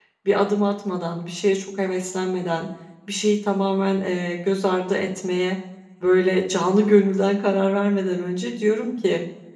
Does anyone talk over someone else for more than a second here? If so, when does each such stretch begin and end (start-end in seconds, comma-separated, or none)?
none